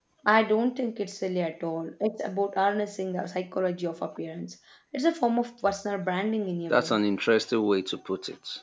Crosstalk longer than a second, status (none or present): none